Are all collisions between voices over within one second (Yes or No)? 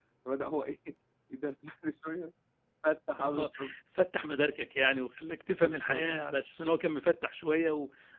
Yes